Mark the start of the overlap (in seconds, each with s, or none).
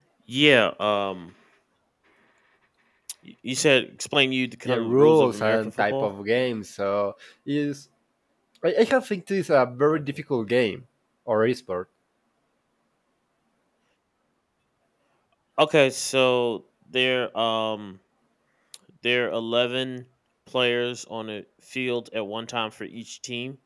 4.7 s